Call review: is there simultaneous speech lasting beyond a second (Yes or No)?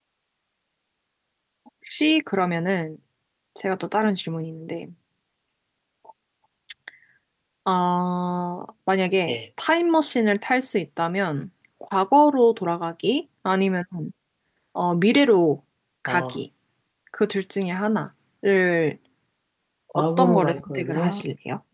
Yes